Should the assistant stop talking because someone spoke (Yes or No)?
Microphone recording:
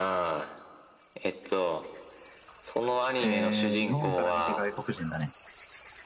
Yes